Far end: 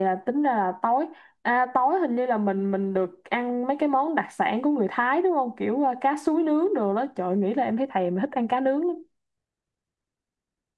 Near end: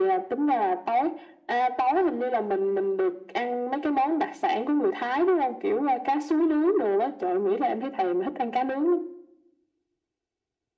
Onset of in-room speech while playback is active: none

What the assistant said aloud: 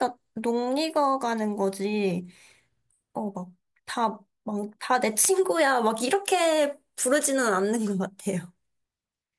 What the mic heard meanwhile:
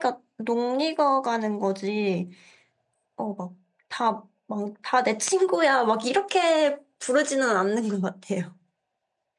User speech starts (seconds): none

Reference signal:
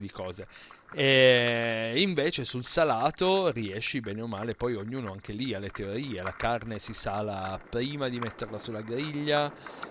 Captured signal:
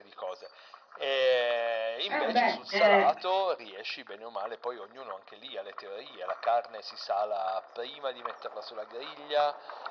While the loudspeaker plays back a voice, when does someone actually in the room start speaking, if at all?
2.1 s

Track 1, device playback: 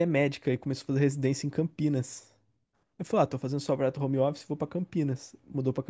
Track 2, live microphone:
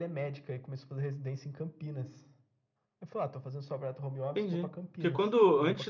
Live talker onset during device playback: 4.3 s

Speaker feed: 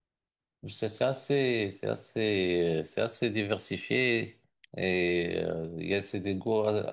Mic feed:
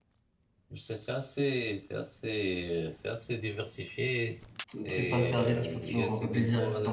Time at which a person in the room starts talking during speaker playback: 4.7 s

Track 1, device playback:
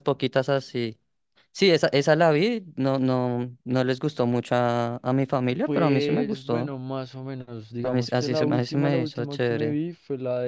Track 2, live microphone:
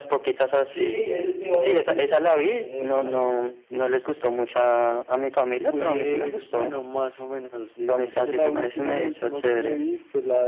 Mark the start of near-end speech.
0.6 s

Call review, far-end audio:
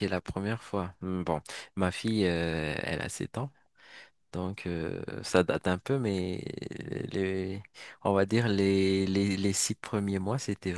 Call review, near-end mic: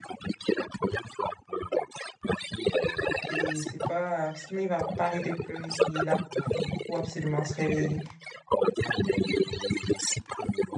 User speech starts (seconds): 3.2 s

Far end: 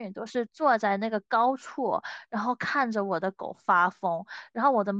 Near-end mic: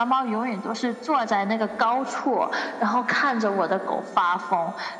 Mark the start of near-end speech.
none

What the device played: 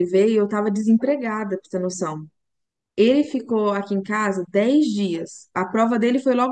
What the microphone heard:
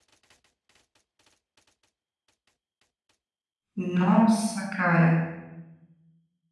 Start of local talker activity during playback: 3.8 s

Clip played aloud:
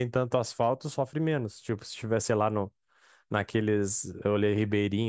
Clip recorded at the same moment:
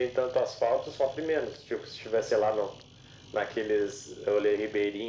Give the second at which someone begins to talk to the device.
none

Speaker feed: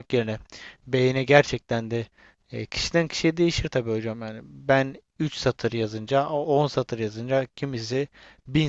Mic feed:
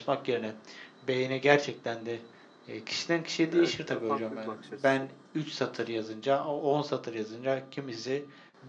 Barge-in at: 3.5 s

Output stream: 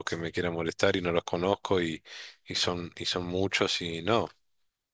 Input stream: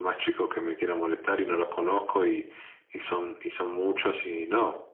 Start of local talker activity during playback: none

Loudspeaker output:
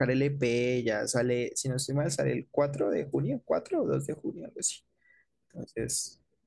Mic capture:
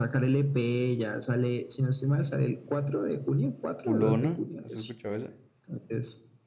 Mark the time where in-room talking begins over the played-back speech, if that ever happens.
3.7 s

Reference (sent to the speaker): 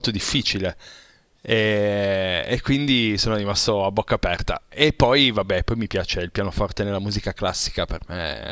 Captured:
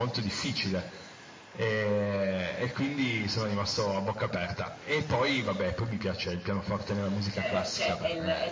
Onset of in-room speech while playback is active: 7.3 s

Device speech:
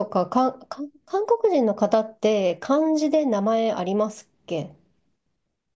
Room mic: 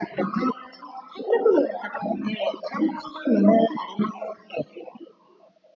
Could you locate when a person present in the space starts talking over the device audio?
none

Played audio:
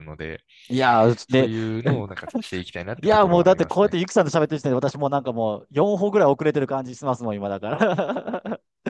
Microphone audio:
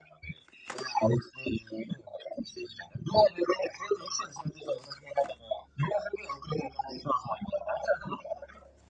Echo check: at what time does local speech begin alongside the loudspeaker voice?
none

